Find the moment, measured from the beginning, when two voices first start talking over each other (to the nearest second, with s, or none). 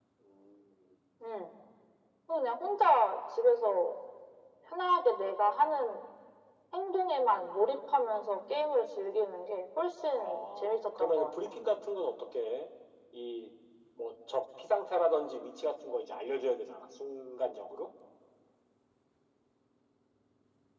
10 s